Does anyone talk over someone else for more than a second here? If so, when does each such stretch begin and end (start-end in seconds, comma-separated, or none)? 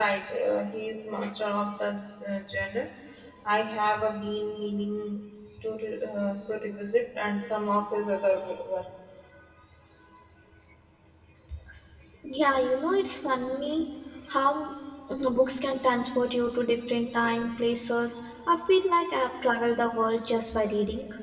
none